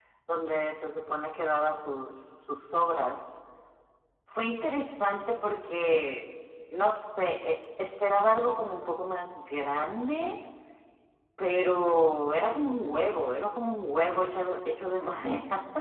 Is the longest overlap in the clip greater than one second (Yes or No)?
No